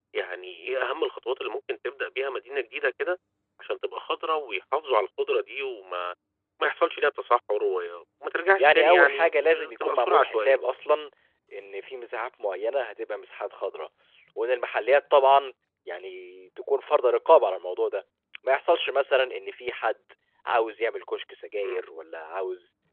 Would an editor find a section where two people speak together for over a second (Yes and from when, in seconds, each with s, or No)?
Yes, from 8.6 s